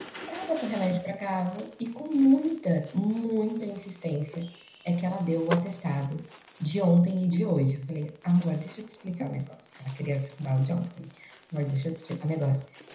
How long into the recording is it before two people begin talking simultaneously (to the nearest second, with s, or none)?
none